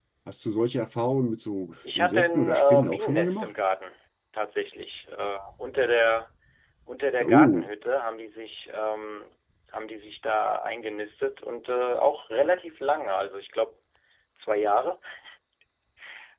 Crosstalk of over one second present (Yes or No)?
Yes